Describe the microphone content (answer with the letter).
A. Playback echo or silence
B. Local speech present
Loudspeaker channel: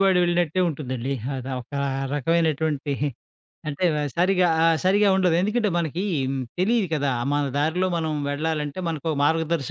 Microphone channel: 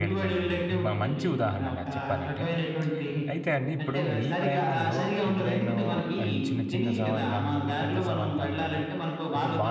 B